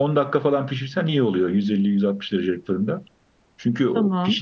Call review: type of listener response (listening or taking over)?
listening